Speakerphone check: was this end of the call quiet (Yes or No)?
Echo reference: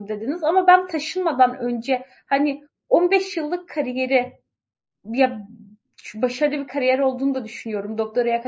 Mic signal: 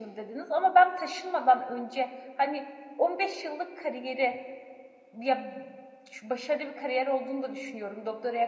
Yes